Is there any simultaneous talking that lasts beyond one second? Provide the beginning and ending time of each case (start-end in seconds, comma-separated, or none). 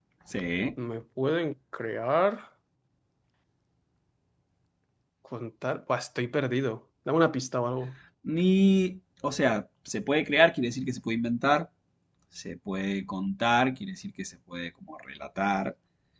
none